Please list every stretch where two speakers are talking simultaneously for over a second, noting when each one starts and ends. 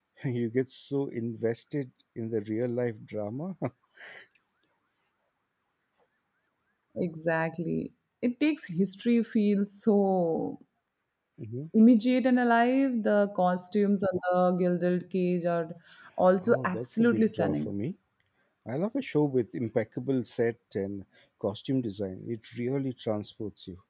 16.4-17.7

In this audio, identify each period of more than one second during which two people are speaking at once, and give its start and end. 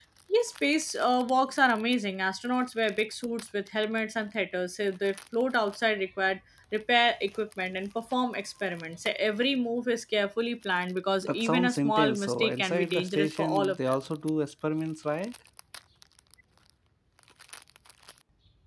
11.2-14.0

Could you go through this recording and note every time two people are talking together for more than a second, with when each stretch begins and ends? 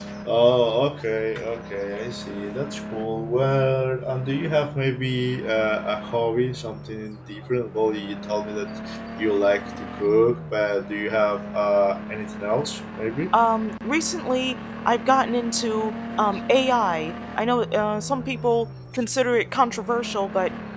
none

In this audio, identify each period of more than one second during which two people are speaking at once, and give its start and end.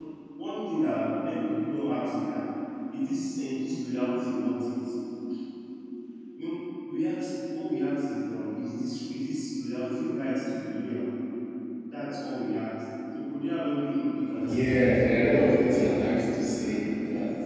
14.4-15.7

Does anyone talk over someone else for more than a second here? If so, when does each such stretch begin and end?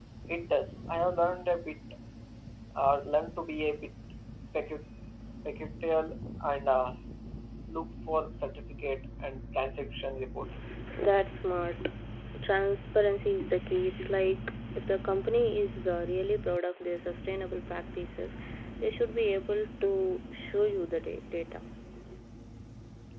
none

